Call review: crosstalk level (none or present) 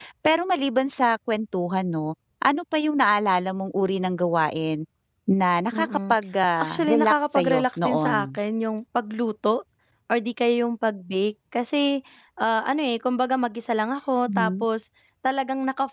present